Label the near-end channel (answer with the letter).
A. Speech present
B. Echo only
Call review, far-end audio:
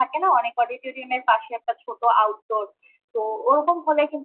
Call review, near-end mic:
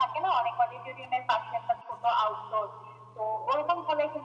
B